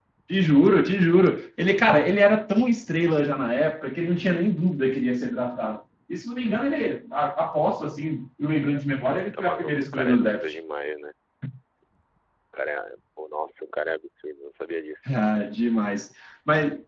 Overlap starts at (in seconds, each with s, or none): 9.1 s